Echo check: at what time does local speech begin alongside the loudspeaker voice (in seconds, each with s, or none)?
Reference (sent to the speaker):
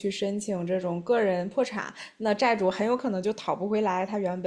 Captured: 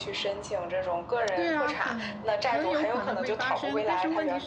1.3 s